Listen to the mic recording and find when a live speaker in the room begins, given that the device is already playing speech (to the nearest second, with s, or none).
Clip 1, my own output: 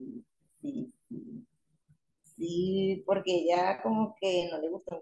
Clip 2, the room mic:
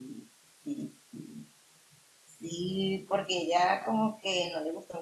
none